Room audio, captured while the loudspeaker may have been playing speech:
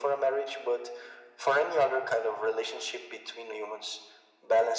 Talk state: echo only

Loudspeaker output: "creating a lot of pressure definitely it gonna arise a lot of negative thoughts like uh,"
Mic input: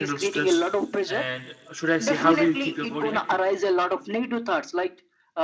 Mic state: both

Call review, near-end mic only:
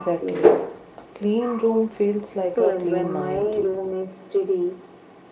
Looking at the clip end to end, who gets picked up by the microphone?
both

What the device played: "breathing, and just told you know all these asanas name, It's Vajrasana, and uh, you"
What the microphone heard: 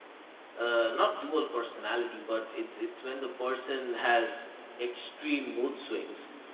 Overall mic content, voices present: user only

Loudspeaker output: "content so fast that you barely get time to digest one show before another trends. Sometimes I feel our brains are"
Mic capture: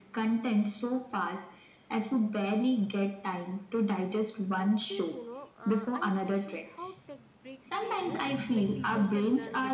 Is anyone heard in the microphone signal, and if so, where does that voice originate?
both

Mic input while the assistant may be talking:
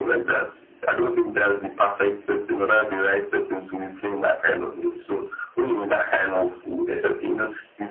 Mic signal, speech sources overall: echo only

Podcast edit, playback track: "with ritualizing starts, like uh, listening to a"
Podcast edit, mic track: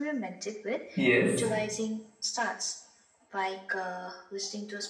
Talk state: both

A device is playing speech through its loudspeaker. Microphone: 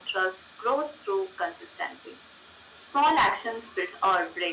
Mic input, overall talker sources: echo only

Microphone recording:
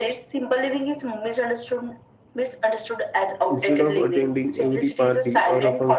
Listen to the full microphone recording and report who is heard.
both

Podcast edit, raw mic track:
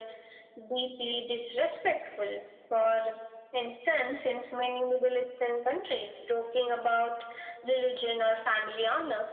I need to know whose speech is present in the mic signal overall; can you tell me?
echo only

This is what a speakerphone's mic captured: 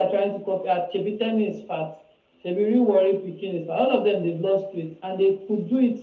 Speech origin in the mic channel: echo only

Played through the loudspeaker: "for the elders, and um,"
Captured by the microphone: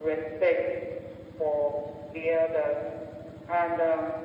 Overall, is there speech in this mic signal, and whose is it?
echo only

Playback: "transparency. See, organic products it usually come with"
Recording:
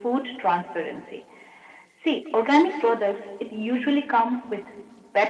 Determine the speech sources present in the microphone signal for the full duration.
echo only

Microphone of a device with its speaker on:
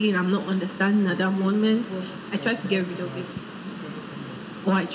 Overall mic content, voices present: both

